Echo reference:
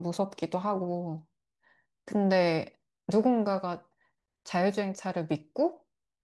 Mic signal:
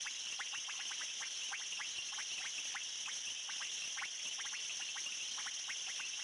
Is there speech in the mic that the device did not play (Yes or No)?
No